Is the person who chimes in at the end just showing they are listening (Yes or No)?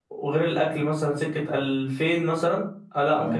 Yes